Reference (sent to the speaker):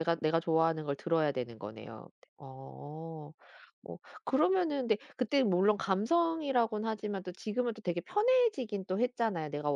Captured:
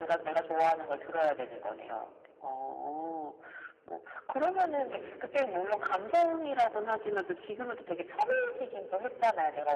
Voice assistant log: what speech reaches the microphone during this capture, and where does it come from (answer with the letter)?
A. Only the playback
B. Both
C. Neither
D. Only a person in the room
A